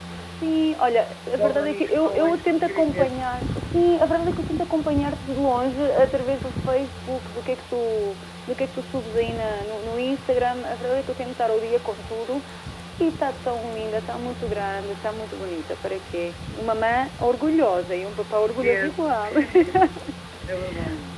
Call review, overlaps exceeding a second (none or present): present